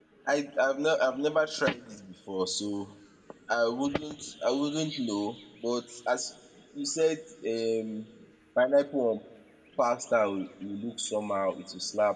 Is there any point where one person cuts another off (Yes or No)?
No